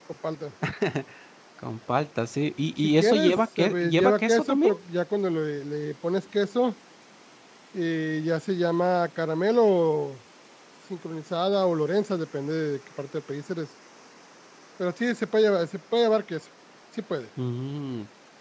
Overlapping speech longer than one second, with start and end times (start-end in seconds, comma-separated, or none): 2.8-4.7